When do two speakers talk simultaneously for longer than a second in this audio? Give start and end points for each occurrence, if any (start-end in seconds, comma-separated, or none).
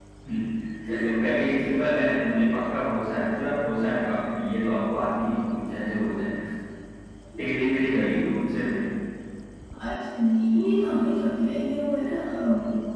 none